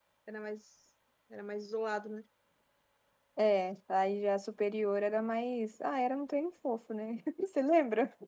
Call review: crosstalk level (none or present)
none